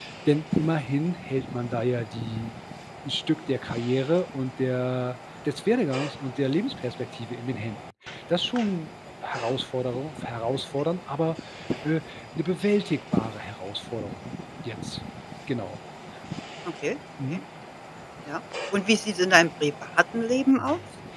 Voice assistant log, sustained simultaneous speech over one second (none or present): none